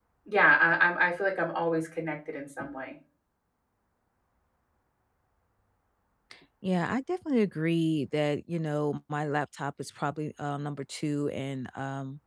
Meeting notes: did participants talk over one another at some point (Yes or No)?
No